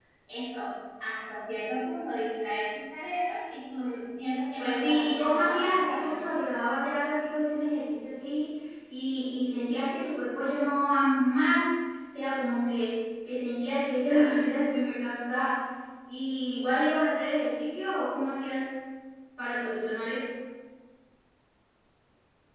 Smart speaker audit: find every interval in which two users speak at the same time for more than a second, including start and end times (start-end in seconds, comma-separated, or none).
4.6-6.1